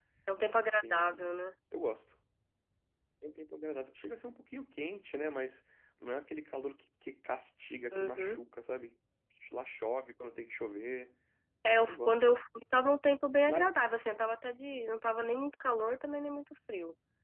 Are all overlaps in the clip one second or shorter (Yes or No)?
Yes